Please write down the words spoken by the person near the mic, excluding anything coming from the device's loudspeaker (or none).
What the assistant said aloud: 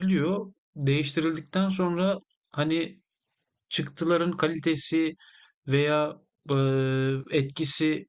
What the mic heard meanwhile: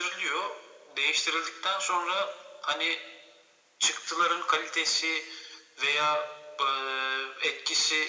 none